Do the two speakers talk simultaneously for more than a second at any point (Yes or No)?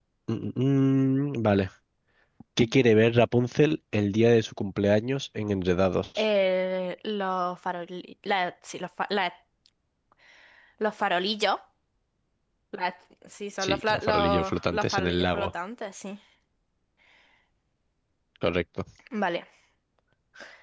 Yes